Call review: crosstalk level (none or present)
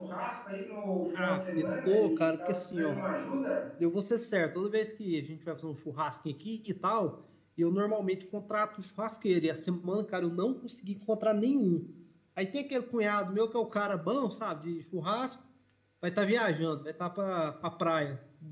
present